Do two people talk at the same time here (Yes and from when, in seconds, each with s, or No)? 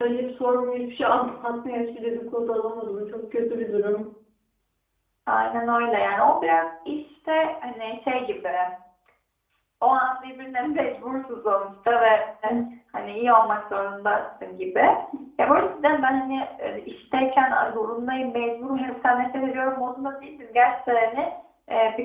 No